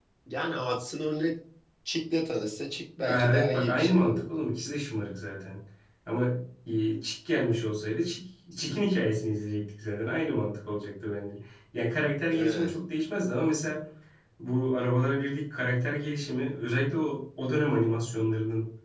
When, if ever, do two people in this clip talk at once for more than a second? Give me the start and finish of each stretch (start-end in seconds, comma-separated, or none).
3.1-4.4